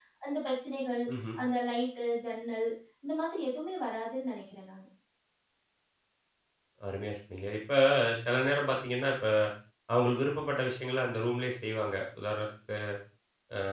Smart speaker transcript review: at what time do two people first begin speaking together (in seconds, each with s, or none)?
none